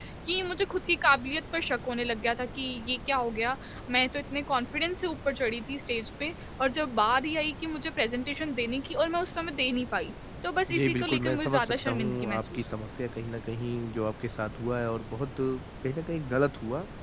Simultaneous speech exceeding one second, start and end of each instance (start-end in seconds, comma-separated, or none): 10.7-12.7